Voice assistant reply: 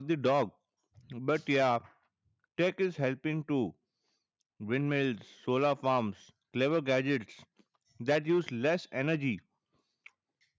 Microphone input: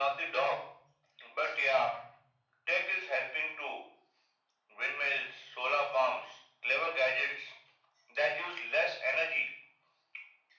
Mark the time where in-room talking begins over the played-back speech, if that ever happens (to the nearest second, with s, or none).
none